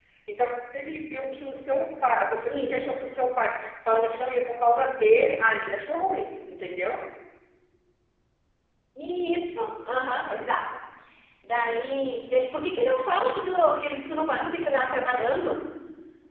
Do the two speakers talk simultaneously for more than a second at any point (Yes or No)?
No